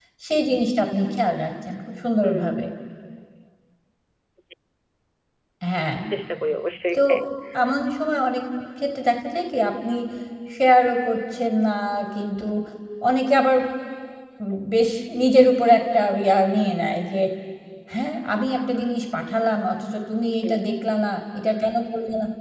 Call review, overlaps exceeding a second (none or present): none